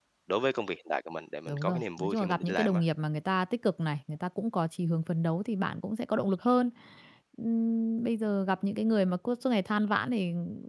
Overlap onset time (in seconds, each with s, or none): 1.5 s